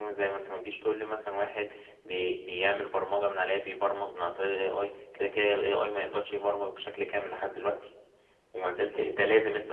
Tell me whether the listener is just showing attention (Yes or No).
Yes